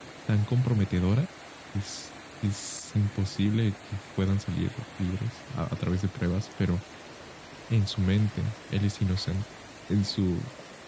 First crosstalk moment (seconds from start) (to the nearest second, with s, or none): none